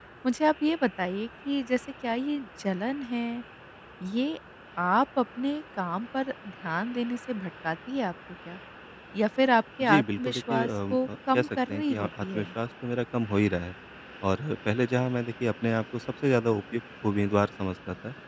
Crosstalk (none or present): present